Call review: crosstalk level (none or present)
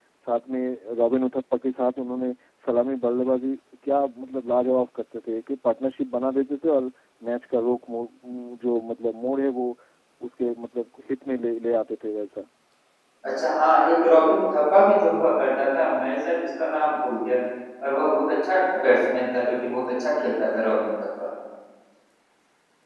none